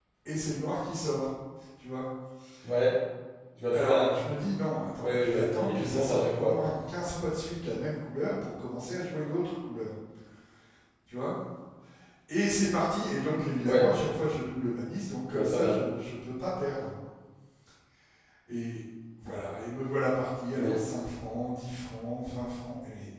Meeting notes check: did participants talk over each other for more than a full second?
Yes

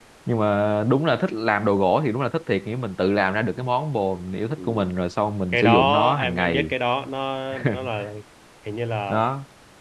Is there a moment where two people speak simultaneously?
Yes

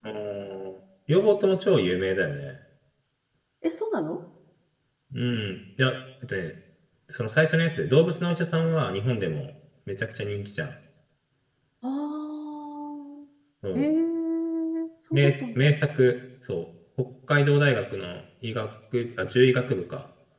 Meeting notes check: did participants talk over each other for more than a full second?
No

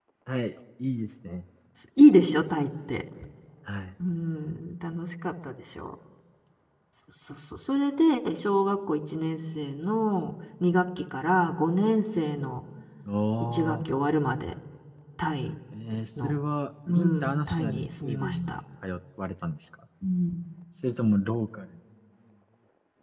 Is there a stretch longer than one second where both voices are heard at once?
Yes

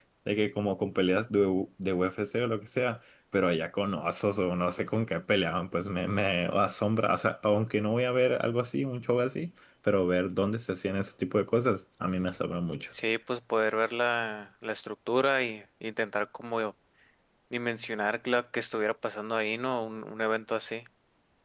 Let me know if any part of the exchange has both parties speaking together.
No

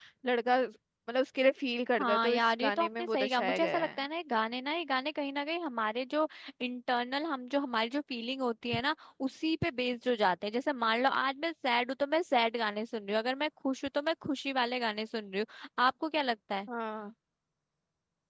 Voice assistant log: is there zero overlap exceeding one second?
No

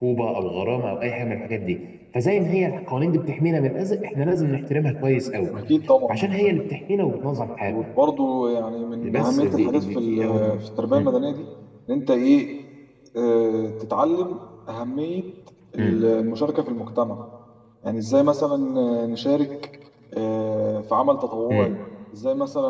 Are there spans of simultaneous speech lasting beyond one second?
Yes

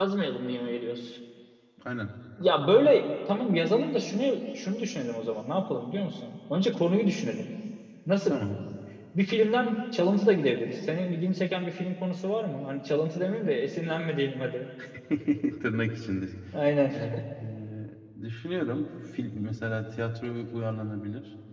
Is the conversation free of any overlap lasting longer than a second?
Yes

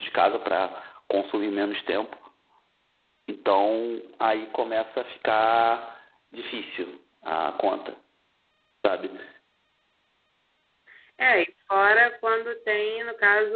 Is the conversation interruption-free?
Yes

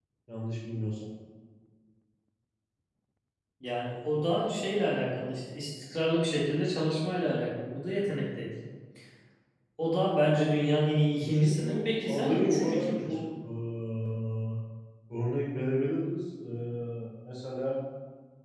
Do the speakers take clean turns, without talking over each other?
No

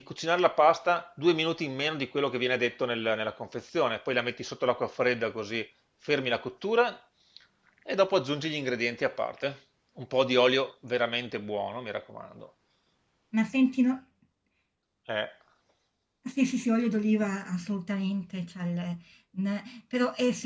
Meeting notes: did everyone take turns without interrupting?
Yes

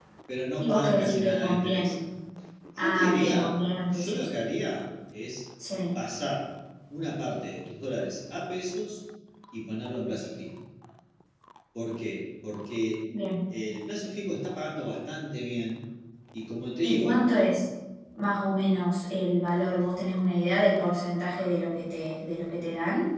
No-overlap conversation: No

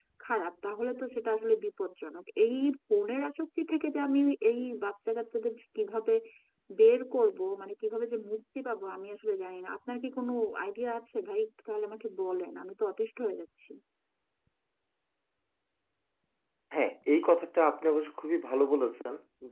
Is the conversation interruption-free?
Yes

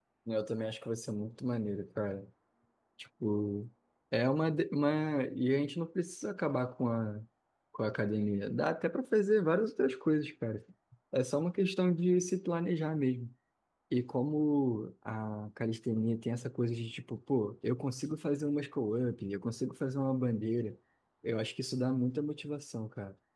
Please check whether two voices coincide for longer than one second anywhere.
No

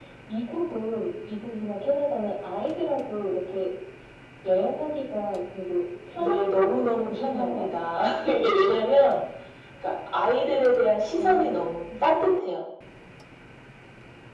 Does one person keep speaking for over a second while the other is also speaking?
Yes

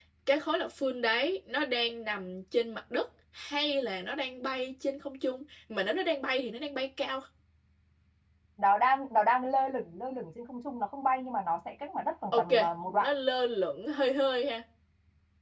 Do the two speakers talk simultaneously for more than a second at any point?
No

